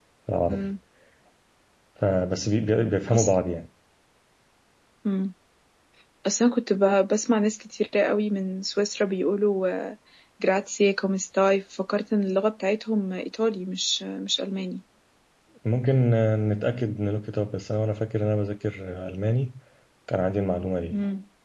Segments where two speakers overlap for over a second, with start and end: none

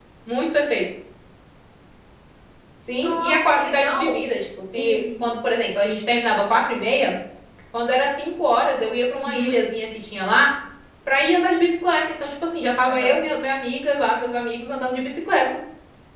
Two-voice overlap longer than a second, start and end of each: 3.0-4.2

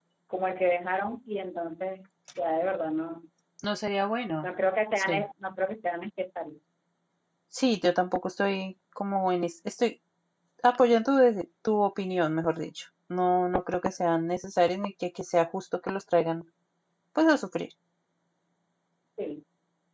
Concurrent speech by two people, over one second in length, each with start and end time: none

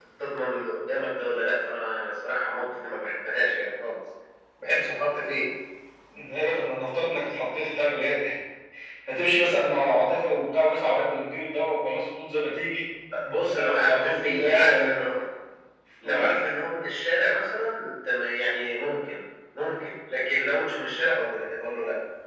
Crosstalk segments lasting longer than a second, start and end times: 13.4-15.0

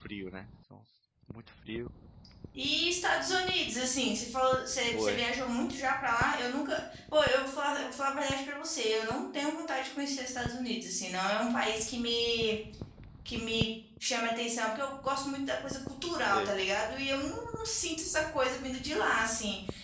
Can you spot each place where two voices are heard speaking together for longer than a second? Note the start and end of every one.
none

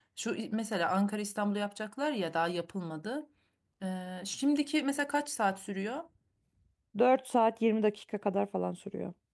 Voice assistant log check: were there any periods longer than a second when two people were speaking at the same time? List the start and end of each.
none

